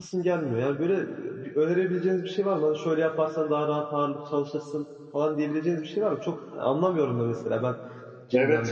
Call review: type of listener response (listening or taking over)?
taking over